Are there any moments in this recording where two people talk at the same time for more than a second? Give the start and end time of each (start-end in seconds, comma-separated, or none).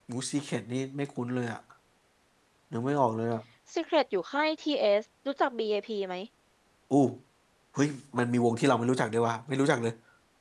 none